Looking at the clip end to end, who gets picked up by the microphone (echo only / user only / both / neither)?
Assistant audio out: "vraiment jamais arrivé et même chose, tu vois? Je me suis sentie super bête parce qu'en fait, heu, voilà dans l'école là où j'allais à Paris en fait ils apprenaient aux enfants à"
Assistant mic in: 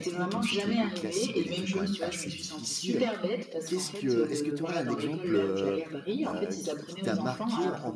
both